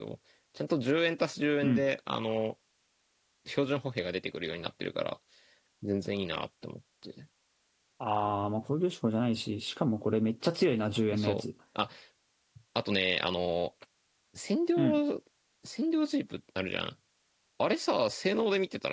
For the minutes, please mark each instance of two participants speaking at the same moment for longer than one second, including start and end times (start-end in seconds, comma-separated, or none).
none